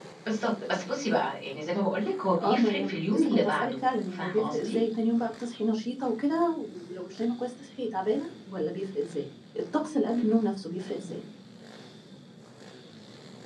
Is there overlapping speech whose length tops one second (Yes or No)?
Yes